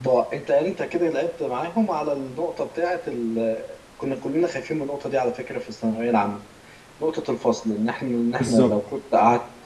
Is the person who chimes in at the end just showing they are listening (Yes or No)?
Yes